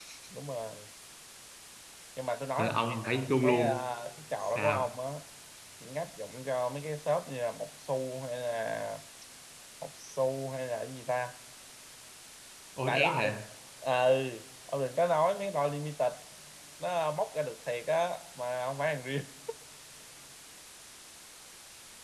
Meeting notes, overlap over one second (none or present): present